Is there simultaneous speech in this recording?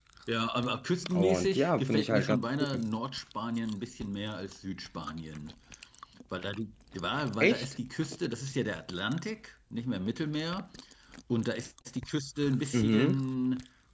Yes, from 1.2 s

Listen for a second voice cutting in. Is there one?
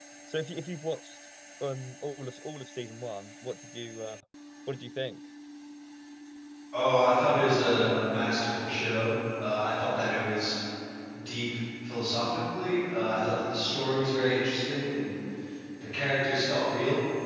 No

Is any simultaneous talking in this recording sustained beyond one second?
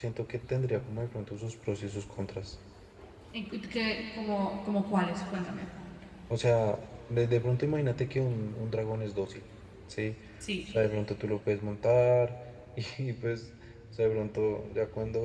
No

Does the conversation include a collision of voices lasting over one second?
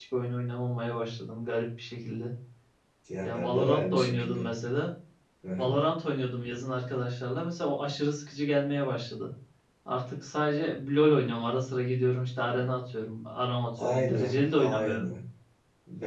Yes, from 3.2 s

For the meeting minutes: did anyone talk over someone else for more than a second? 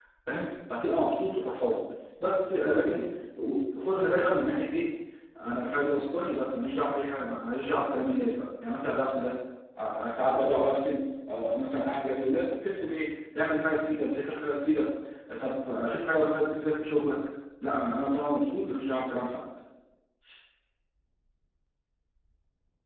No

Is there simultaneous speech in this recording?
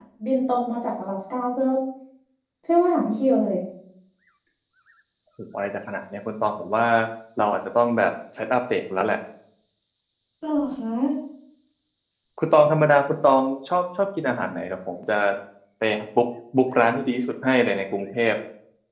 No

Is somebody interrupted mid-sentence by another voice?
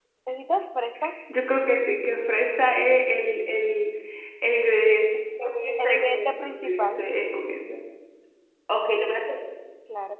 Yes, from 5.8 s

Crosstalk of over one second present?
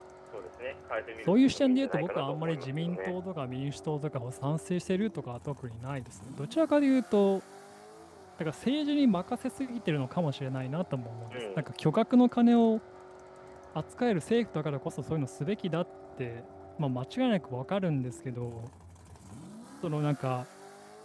Yes, from 1.3 s

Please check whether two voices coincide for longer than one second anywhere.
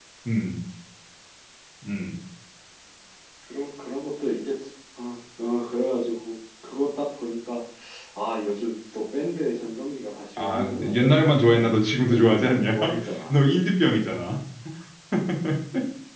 Yes, from 10.4 s

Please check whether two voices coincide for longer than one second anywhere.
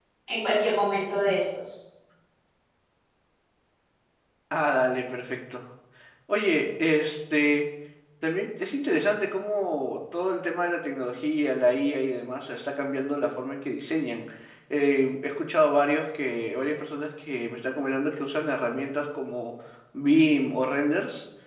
No

